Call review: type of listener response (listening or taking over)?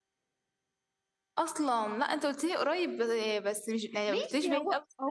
taking over